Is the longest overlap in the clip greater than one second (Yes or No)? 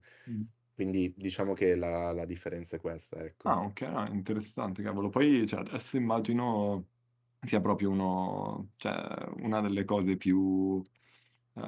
No